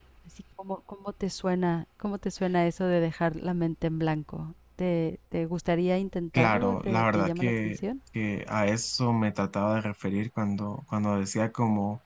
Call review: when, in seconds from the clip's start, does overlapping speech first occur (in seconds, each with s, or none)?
6.3 s